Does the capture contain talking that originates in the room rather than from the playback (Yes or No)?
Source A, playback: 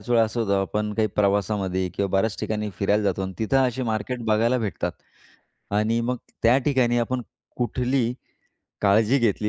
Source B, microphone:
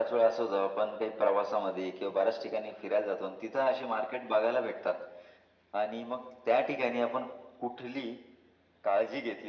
No